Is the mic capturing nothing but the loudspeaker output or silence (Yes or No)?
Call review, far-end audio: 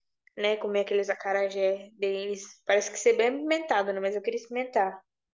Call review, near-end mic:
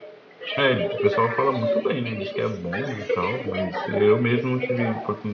No